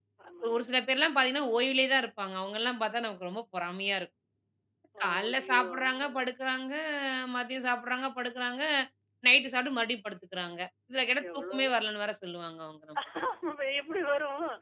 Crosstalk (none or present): present